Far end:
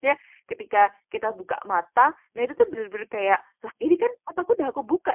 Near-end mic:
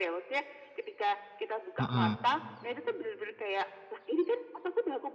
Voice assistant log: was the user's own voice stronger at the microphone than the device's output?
Yes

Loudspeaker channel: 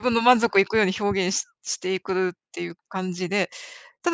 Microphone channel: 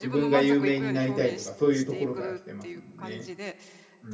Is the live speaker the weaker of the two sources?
No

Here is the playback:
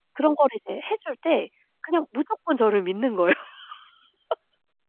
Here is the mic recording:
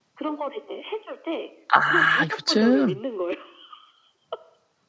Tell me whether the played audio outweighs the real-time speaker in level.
No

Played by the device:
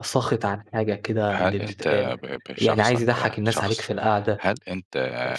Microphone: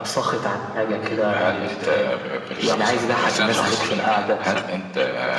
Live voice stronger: No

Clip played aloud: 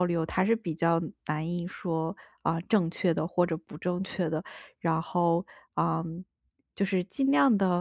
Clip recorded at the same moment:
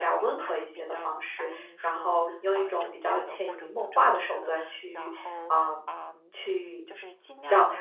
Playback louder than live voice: No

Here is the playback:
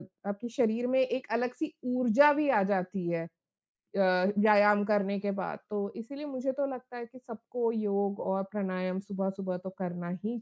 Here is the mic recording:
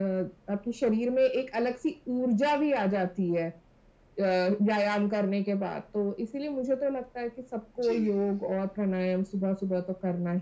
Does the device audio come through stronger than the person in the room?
Yes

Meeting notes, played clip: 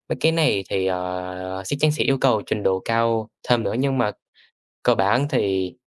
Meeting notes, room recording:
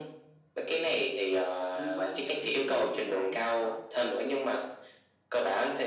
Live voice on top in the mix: No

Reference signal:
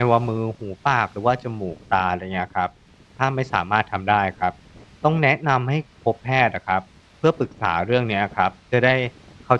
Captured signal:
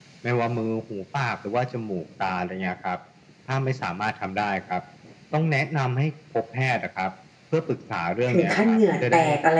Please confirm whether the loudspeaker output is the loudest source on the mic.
No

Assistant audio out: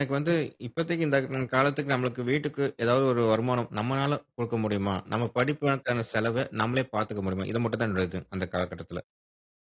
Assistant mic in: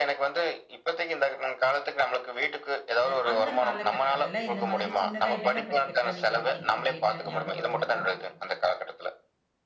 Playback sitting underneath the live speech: No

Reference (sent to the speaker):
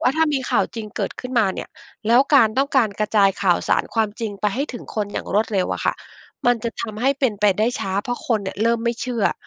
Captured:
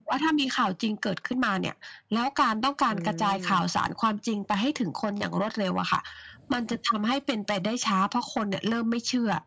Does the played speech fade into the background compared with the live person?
No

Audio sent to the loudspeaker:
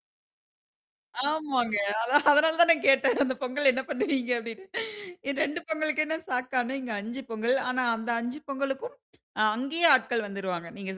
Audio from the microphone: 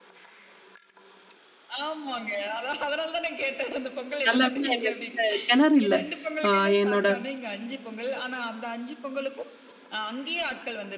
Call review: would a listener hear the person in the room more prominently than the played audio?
Yes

